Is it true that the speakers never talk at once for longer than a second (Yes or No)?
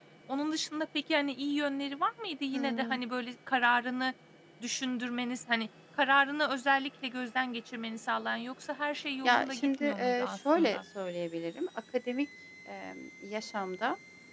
No